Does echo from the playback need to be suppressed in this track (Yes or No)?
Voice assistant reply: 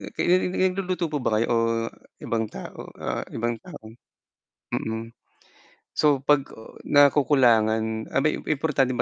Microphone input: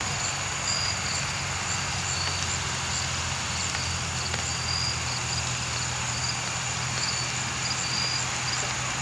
No